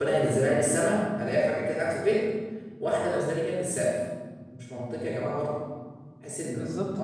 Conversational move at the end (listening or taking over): taking over